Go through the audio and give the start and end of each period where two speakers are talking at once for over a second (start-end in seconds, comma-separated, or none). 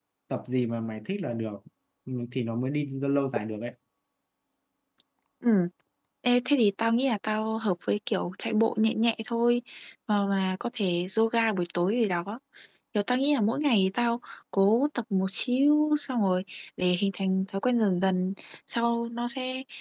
none